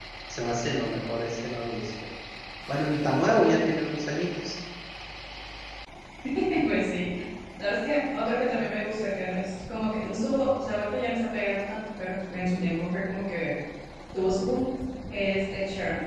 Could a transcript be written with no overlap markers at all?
Yes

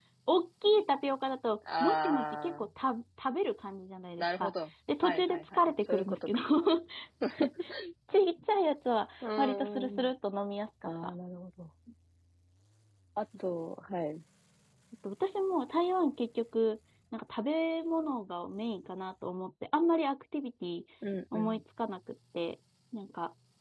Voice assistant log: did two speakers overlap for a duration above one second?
Yes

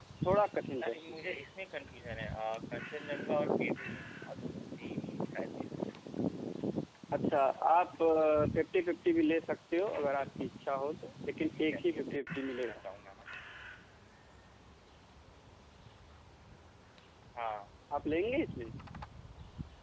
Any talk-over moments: Yes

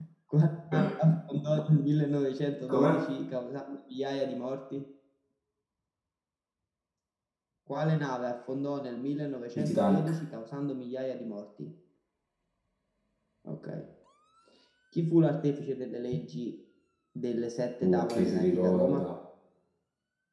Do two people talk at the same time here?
Yes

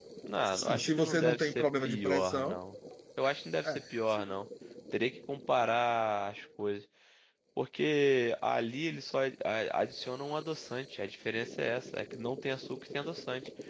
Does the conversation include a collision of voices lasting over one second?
Yes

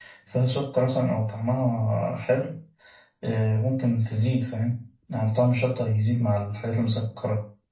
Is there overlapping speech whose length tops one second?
No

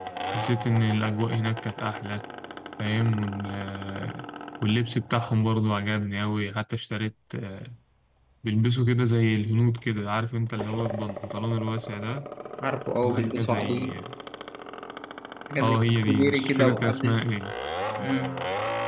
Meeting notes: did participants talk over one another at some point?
Yes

